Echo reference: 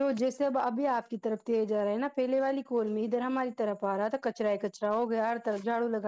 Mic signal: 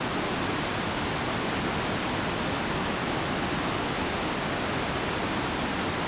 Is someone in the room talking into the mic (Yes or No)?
No